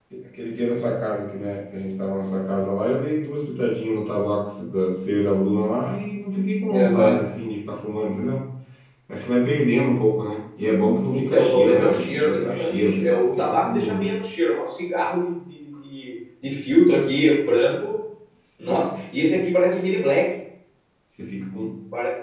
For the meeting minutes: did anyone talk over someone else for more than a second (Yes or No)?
Yes